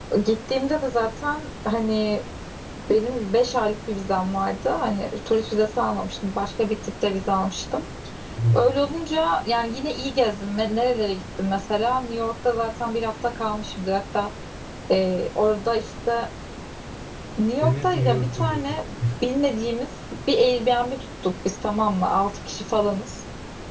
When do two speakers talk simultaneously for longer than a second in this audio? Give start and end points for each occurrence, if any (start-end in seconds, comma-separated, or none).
17.6-18.8